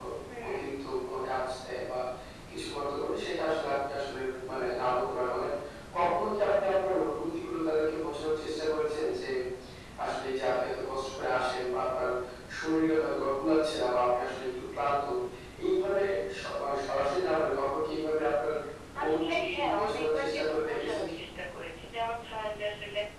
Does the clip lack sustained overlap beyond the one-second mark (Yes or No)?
No